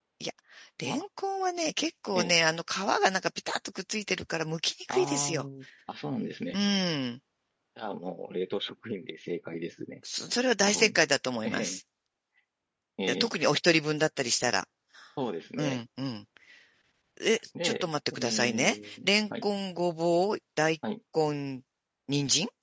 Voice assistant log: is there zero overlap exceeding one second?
No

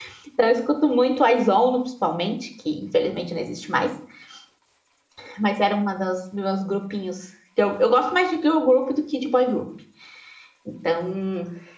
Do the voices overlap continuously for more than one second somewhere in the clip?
No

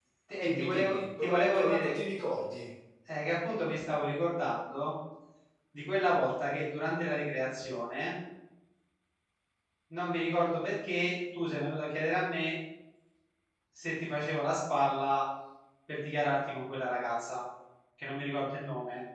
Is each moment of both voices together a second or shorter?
No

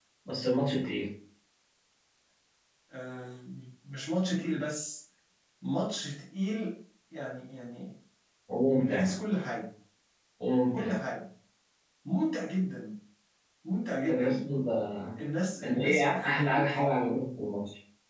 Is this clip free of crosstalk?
No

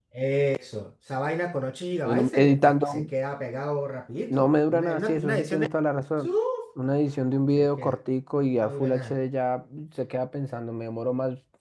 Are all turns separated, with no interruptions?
No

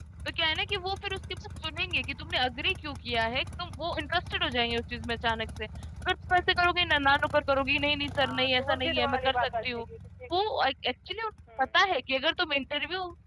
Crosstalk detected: Yes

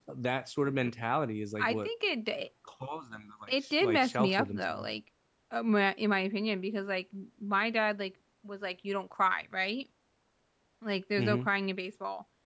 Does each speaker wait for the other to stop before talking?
No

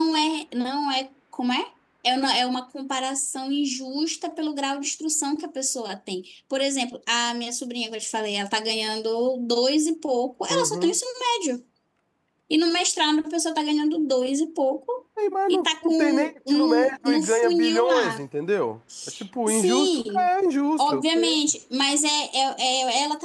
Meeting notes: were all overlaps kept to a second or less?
No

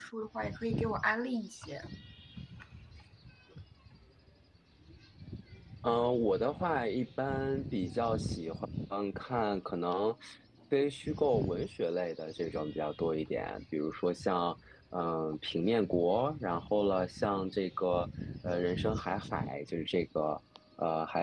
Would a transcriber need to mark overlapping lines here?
No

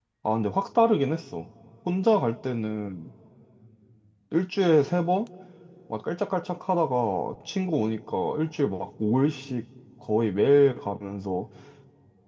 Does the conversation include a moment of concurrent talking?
No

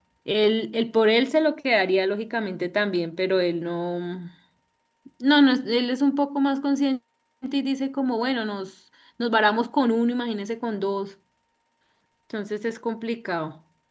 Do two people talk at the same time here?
No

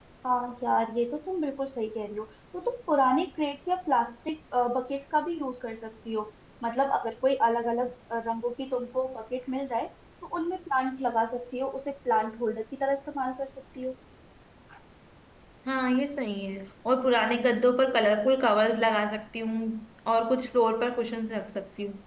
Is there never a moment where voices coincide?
Yes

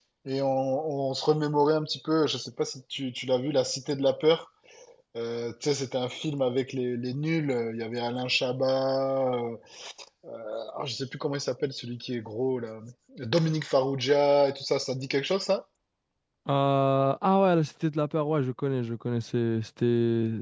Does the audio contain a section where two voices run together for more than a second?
No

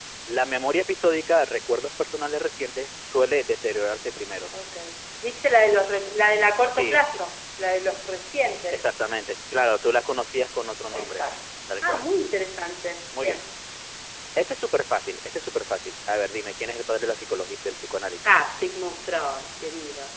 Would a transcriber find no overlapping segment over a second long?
Yes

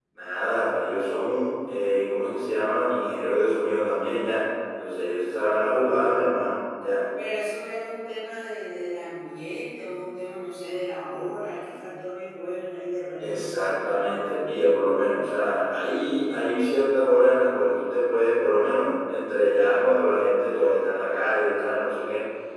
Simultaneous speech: Yes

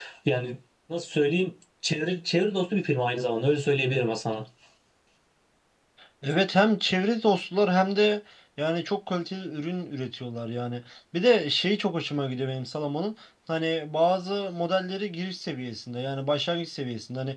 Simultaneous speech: No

